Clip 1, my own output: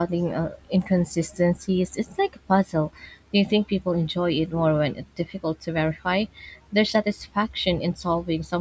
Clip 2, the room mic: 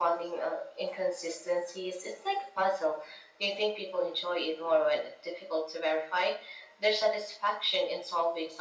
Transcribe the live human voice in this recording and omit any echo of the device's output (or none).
none